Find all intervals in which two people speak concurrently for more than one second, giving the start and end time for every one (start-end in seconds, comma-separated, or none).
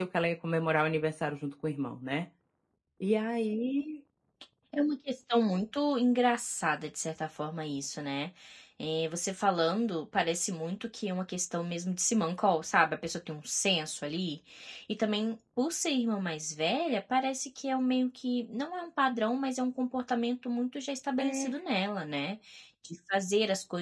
none